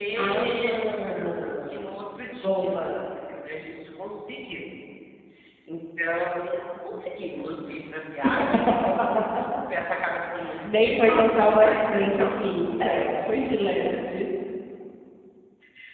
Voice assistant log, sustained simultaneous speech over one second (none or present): present